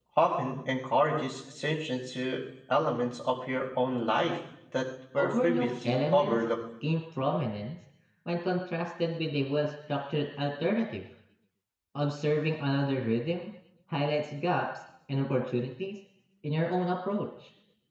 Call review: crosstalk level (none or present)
present